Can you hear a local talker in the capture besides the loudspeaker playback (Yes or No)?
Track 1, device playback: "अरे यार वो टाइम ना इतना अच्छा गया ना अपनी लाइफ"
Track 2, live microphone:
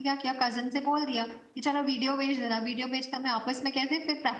Yes